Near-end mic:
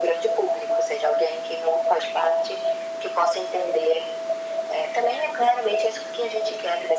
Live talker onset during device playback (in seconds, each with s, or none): none